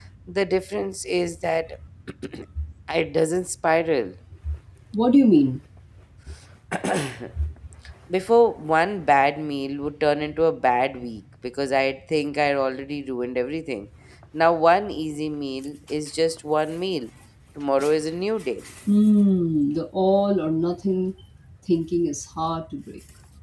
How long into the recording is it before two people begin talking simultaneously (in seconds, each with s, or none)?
none